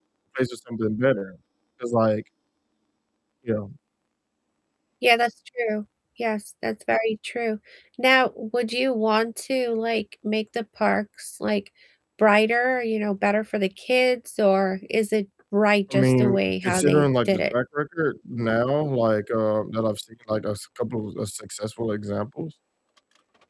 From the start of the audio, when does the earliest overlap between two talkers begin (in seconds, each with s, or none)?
15.9 s